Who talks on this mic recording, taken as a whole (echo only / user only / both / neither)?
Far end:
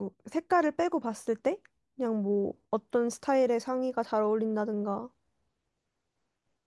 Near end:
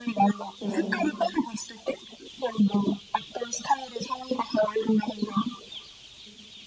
both